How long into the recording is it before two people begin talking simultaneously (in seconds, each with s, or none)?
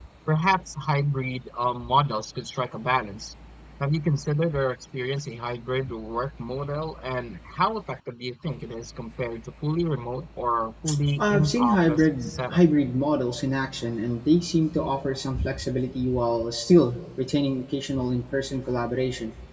11.2 s